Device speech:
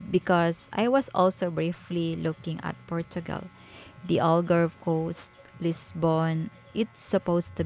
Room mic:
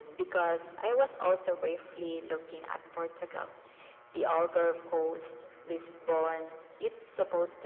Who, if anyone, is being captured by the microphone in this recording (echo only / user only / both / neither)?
echo only